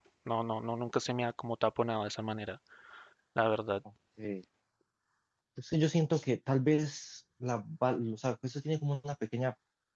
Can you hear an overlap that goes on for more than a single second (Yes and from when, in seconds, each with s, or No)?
No